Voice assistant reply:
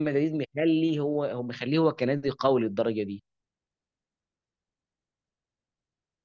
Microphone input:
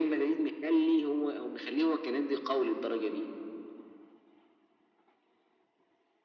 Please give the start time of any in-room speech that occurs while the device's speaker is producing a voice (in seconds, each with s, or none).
none